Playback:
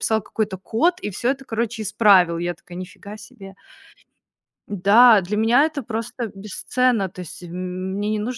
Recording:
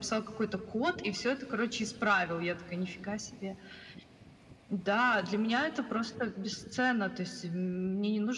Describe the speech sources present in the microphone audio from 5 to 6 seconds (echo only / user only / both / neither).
echo only